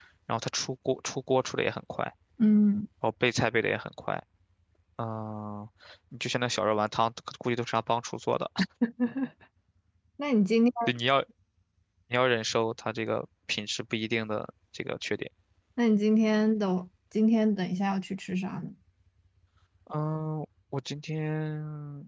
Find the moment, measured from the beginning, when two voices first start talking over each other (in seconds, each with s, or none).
none